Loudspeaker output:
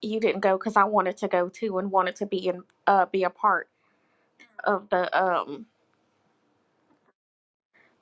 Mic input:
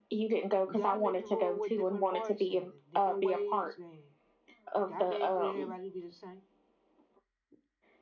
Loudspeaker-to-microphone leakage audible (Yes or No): Yes